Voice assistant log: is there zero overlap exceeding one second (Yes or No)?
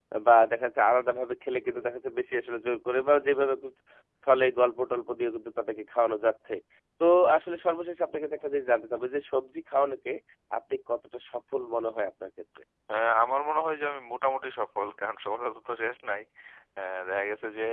Yes